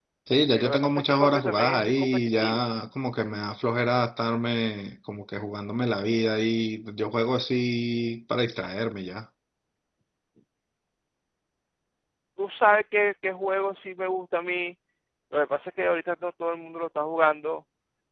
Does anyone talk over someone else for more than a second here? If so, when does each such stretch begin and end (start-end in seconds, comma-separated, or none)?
0.5-2.7